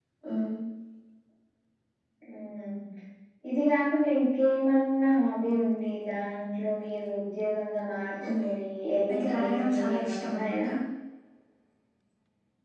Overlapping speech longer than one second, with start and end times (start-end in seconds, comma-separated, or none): 9.1-10.6